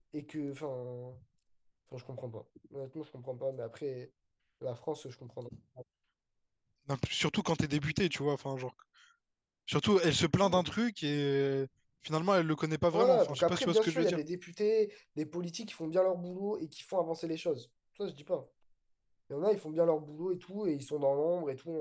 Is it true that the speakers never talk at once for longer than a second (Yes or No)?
No